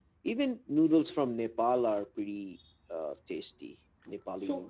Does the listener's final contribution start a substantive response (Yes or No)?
Yes